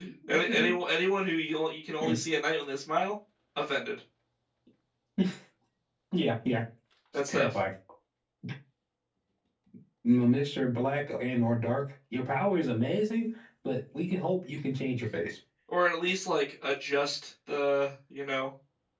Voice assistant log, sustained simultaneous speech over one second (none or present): none